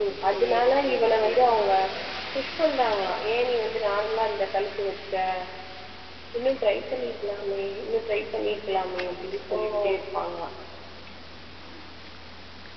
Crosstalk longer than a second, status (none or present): present